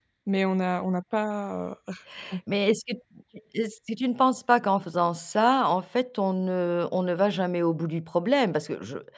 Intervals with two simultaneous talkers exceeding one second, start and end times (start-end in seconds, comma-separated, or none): none